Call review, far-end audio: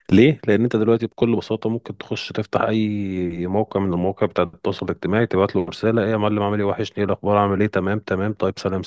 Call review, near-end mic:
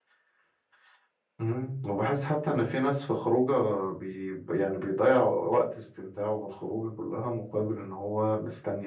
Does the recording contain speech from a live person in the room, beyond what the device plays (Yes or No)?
Yes